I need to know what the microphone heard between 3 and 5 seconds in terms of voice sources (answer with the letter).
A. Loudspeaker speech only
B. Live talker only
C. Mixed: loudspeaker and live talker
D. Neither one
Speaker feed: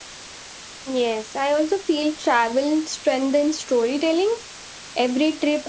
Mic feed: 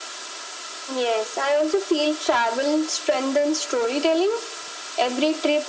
A